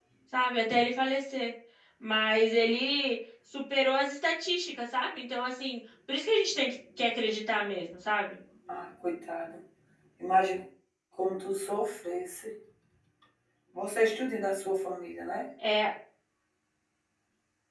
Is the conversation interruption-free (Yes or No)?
Yes